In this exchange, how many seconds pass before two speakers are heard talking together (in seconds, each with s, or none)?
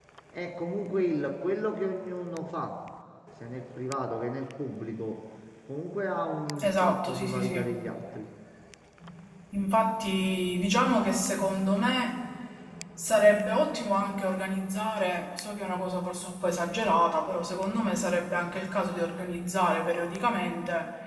6.6 s